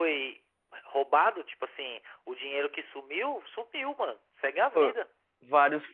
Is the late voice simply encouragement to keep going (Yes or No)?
No